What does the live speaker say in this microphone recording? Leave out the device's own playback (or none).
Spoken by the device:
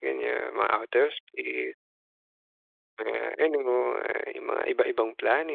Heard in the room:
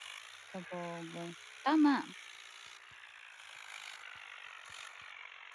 Sabagay, tama,